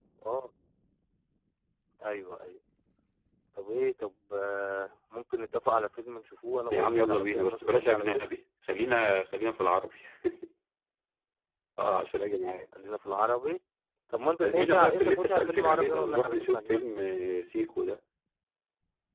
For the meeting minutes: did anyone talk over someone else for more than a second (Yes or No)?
Yes